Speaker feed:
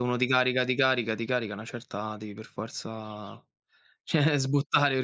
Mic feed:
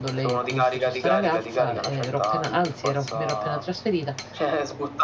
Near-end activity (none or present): present